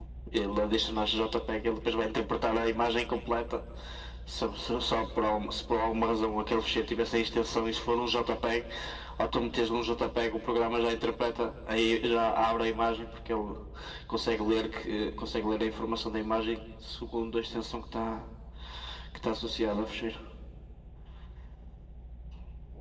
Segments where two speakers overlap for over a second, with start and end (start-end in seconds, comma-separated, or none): none